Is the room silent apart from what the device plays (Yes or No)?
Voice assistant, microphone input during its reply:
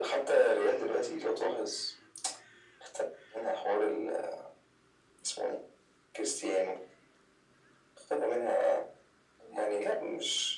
Yes